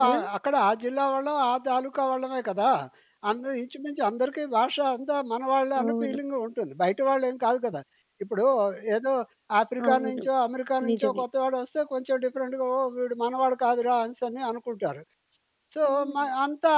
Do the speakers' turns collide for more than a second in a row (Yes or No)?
No